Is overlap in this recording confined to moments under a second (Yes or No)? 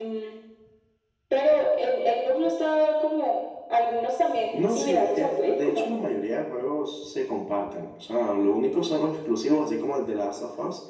No